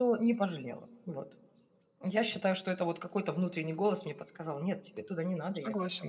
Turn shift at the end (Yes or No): Yes